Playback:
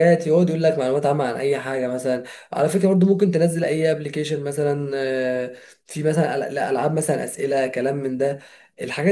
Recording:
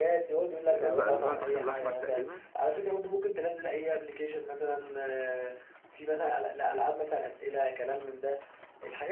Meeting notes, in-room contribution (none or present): present